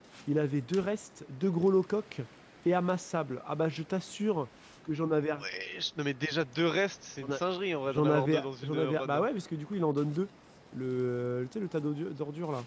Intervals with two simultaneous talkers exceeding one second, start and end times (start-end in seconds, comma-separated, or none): 7.9-9.2